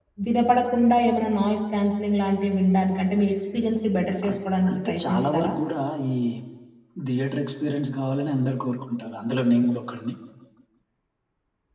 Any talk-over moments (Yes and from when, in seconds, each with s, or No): Yes, from 4.2 s